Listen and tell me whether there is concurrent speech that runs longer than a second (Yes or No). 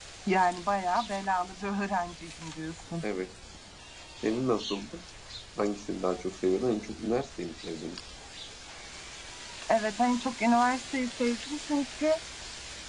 No